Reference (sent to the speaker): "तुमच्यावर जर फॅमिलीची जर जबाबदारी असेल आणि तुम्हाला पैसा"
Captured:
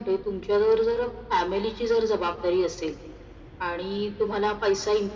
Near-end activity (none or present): none